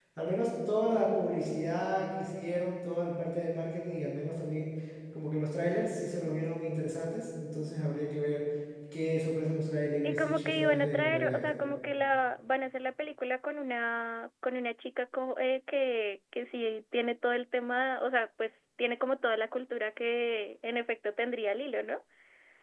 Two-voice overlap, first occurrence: 10.0 s

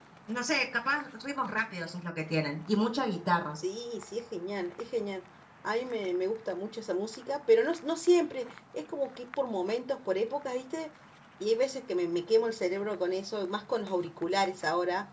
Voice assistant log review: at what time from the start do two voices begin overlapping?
none

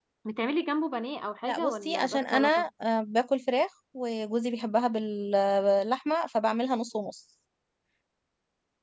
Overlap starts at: 1.4 s

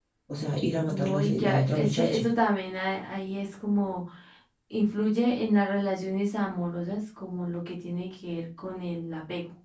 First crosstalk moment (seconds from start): 0.9 s

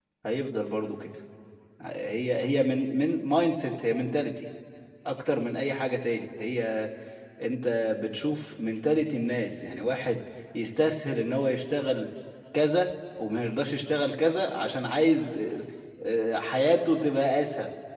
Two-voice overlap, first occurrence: none

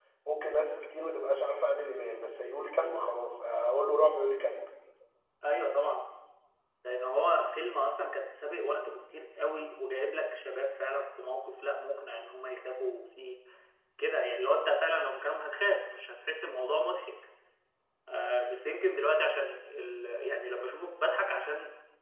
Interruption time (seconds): none

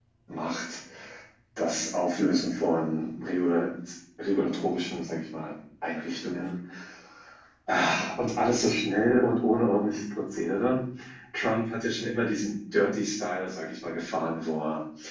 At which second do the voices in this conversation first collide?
none

